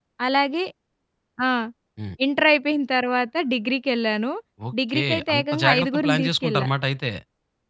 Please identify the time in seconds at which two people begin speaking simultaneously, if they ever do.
4.9 s

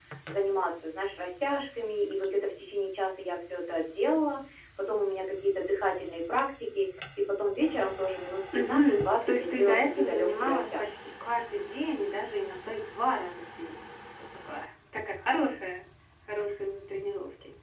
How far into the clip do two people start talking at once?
8.5 s

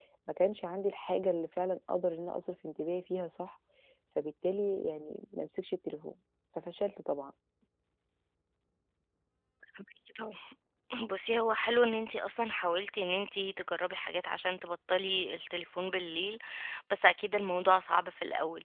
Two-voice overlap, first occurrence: none

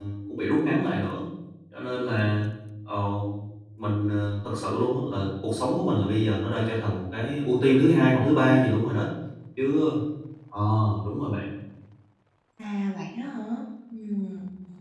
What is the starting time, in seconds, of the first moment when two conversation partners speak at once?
none

